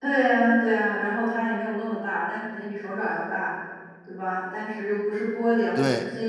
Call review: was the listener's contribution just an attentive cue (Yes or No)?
Yes